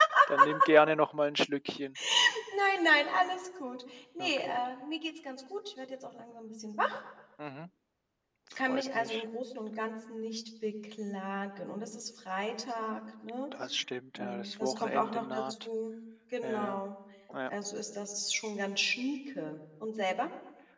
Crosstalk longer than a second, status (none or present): present